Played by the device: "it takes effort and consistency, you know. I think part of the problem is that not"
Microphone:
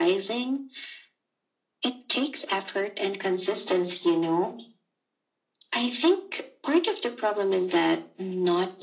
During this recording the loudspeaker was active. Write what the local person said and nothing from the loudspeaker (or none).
none